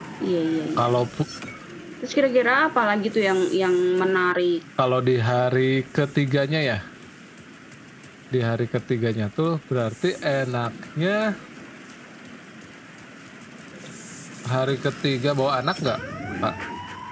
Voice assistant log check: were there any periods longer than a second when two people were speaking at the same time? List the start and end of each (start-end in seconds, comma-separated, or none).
none